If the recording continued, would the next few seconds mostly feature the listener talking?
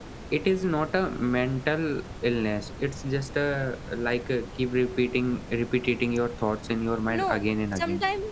Yes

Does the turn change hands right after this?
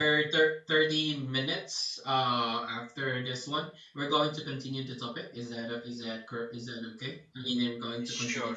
Yes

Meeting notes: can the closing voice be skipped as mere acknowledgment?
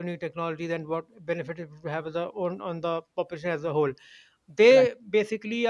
Yes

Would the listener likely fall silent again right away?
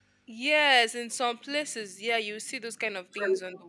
Yes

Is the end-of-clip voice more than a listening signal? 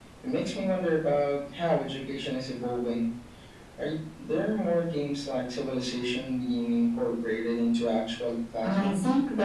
Yes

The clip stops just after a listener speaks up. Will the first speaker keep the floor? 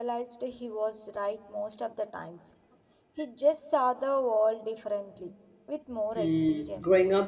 No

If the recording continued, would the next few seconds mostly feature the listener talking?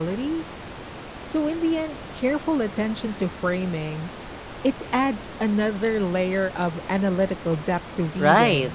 Yes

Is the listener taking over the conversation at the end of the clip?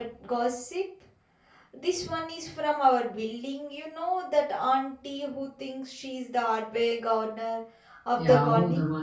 Yes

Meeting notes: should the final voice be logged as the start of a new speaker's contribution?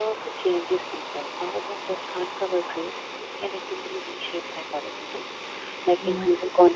No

